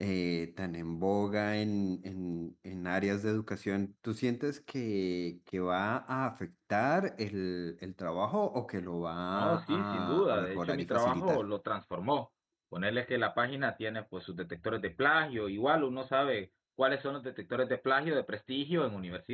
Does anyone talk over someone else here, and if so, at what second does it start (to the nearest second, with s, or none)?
9 s